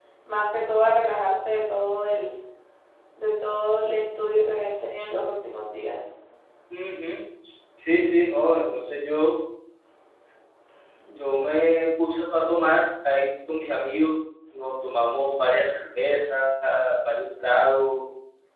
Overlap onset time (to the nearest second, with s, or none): none